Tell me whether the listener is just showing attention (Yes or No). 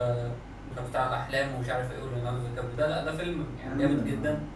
Yes